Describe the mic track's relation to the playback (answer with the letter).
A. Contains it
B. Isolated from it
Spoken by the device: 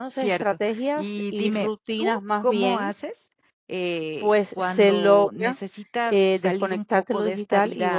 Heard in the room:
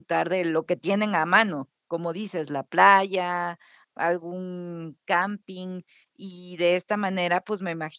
B